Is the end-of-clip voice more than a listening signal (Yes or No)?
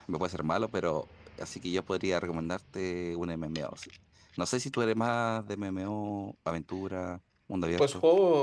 Yes